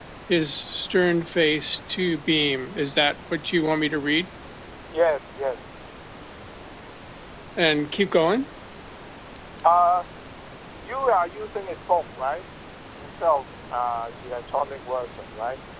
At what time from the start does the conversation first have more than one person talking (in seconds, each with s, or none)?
none